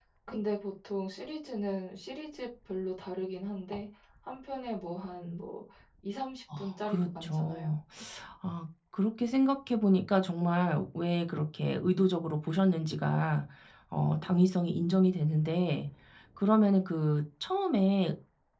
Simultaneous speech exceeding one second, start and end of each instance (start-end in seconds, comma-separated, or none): 6.6-7.8